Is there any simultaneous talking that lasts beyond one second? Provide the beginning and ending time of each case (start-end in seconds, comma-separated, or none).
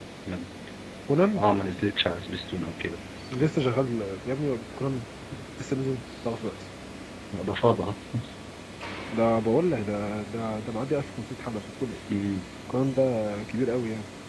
none